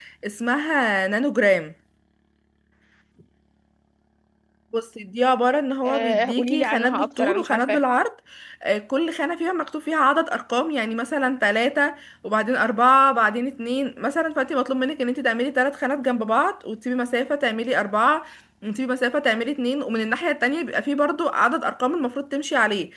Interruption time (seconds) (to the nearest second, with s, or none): 6 s